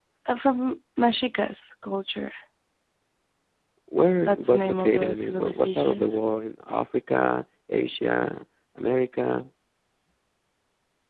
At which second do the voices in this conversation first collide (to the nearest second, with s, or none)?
4 s